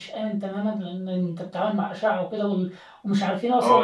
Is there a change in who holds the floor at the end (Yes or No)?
Yes